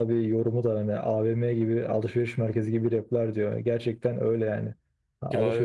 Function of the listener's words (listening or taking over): listening